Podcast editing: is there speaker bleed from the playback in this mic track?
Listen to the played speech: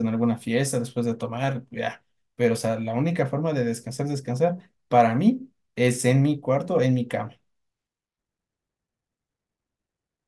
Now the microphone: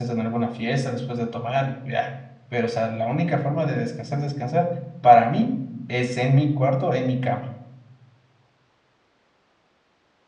Yes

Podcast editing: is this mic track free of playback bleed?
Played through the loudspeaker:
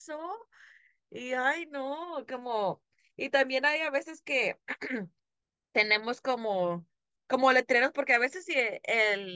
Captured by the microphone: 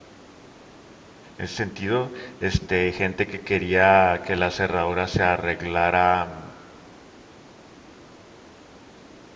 Yes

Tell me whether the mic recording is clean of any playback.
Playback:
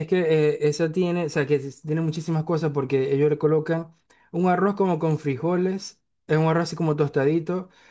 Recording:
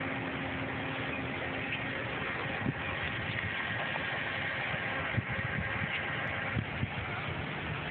Yes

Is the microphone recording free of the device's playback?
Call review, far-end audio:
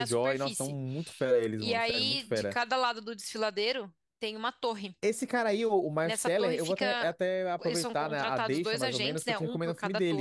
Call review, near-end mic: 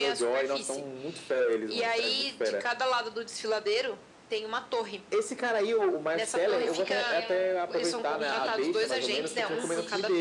No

